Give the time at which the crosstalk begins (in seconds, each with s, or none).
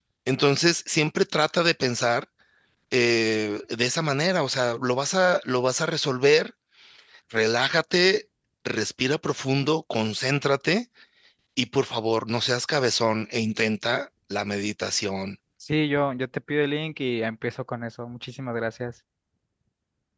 none